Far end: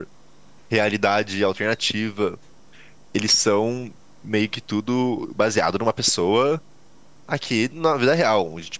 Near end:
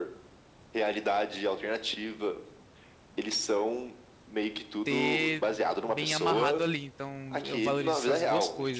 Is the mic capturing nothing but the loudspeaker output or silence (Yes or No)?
No